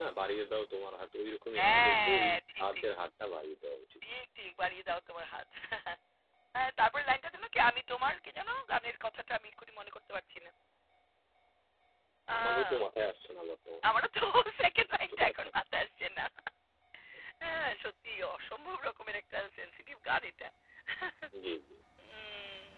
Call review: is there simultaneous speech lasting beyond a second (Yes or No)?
Yes